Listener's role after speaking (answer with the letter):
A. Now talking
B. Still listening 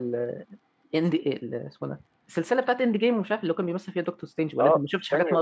A